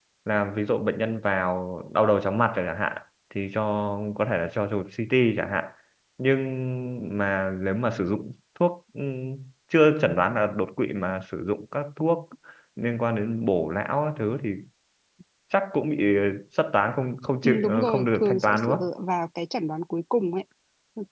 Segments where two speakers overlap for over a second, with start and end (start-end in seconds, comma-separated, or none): 17.4-18.9